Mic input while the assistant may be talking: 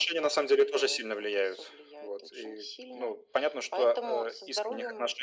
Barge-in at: none

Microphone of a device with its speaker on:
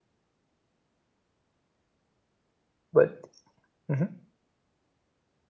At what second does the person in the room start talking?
3 s

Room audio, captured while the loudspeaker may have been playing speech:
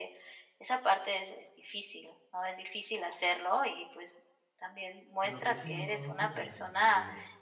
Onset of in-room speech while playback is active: 5 s

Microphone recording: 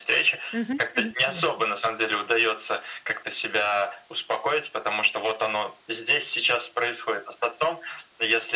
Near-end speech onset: 0 s

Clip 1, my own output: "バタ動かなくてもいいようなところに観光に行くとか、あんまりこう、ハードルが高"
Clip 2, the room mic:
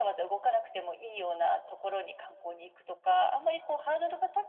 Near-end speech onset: none

